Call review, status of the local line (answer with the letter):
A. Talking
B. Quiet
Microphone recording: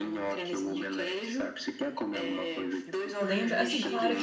A